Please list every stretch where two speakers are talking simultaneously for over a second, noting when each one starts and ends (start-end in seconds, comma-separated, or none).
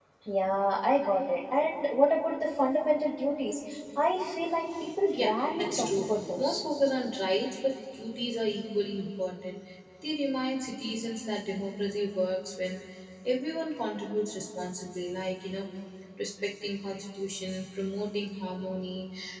5.2-6.6